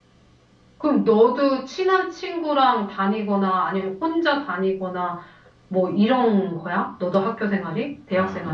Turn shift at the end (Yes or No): Yes